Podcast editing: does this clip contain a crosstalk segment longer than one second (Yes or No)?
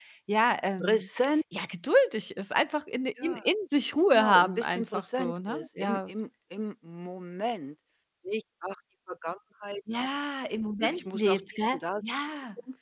Yes